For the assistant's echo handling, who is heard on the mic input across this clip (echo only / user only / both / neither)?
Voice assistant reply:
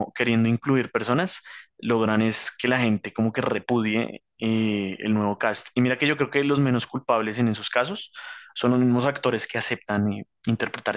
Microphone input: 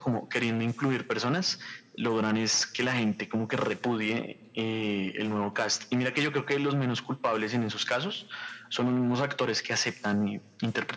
echo only